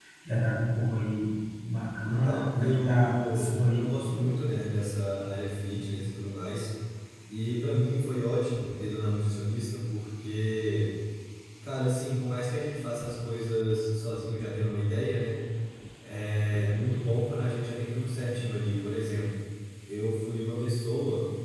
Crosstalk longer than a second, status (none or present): present